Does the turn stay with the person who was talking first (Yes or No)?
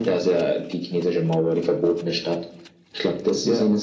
Yes